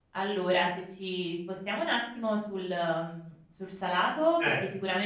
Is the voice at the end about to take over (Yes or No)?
No